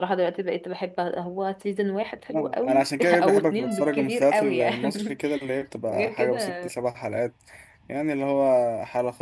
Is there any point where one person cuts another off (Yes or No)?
Yes